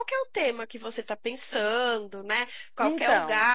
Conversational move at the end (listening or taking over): listening